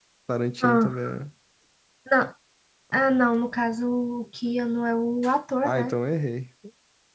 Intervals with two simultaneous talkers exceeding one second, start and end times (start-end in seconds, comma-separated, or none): none